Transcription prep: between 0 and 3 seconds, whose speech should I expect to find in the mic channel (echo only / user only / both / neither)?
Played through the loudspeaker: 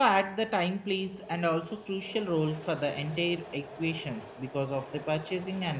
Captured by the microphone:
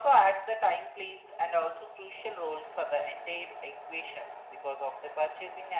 echo only